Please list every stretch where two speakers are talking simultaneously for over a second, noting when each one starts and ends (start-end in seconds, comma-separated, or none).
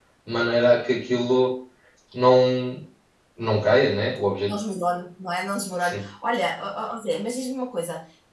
none